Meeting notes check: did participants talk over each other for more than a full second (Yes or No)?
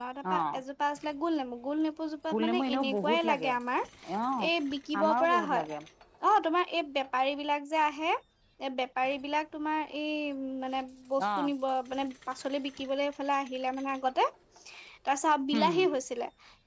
Yes